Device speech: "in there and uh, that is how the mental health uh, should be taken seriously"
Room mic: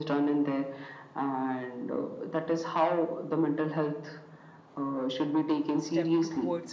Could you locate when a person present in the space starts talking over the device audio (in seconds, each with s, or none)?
5.8 s